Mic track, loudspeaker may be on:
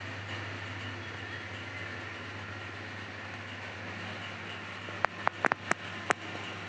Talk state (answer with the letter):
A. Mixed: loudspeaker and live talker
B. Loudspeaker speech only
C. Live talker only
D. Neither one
D